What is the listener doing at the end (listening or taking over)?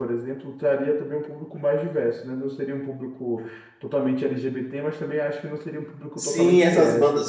taking over